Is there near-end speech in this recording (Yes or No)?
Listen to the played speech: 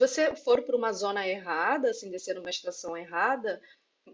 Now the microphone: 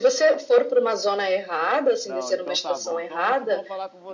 Yes